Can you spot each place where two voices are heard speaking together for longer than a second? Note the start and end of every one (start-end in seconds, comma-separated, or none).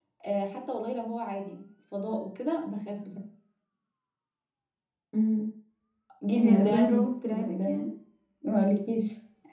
6.4-7.9